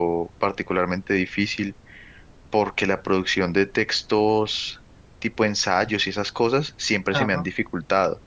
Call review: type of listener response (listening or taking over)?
listening